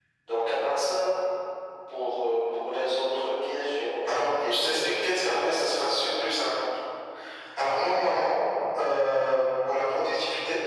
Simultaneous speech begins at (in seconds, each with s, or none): 4.1 s